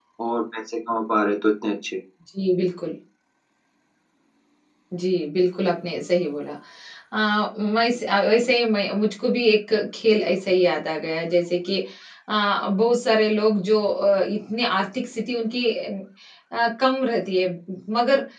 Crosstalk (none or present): none